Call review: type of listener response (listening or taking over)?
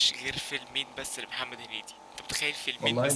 listening